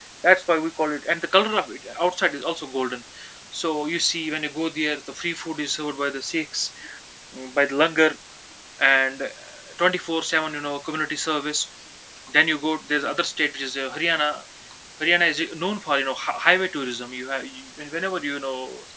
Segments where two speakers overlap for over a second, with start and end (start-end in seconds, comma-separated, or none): none